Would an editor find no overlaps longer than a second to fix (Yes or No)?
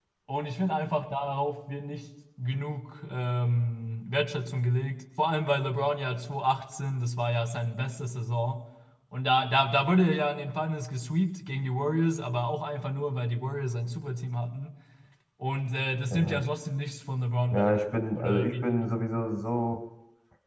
No